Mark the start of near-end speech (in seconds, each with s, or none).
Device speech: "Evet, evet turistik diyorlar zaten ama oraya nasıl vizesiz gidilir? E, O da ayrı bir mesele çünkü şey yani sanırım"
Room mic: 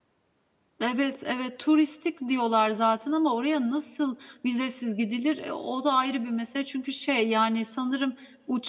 none